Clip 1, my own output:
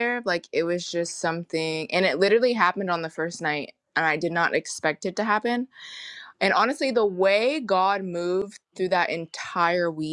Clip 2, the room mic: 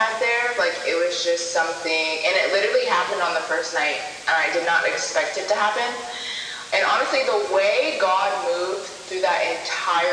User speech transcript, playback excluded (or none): none